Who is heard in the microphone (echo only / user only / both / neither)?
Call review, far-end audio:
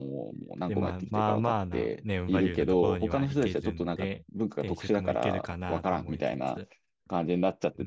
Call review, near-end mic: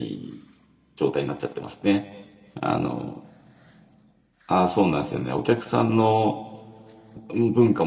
user only